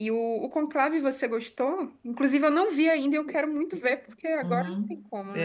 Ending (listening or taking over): taking over